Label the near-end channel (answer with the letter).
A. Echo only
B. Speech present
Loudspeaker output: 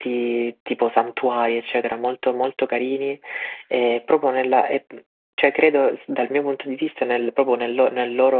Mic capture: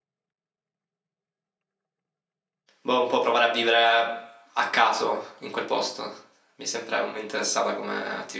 B